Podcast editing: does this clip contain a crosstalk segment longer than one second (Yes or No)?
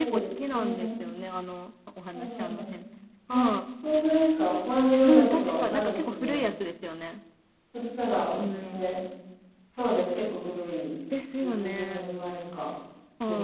Yes